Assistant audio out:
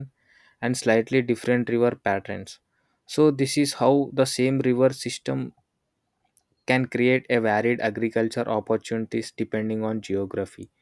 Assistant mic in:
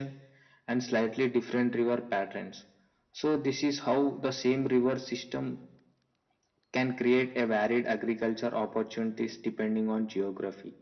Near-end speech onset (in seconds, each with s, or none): none